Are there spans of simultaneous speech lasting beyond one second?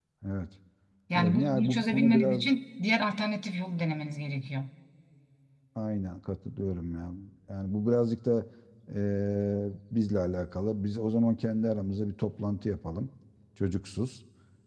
Yes, from 1.2 s

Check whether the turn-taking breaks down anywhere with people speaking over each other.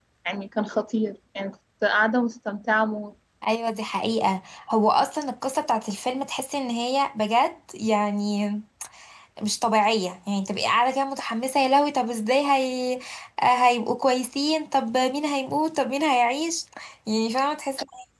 No

